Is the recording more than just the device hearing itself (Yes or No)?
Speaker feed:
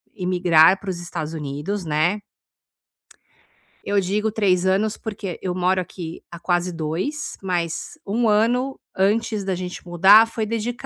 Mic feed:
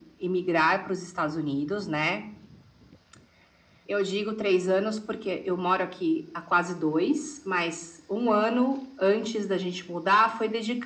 No